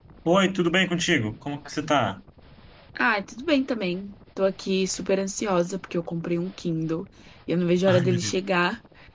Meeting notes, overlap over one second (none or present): none